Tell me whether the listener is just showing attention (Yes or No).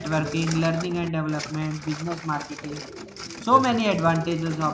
Yes